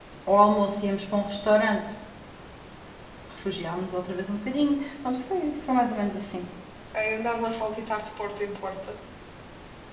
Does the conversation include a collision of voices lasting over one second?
No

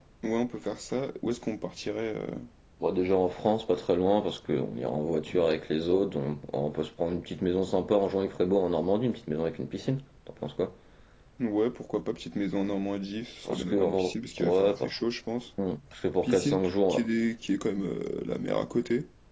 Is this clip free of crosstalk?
No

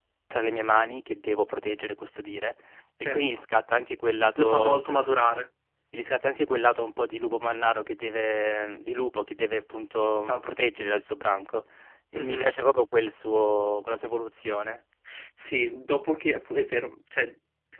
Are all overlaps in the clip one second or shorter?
Yes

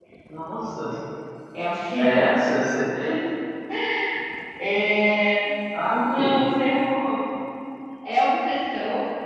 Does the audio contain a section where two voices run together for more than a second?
No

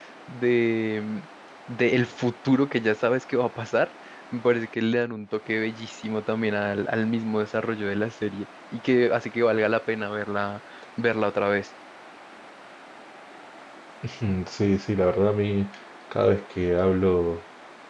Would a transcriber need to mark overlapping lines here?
No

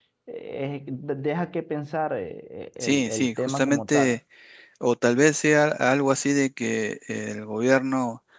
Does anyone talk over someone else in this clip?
Yes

